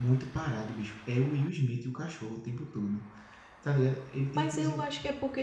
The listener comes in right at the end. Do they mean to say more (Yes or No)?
Yes